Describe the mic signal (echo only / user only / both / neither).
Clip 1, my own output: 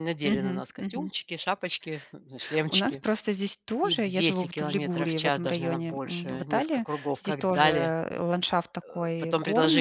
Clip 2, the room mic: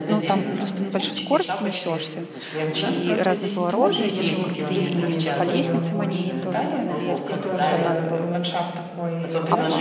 both